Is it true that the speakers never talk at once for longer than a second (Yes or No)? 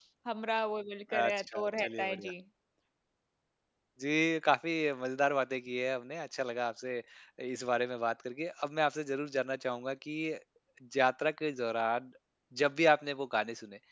No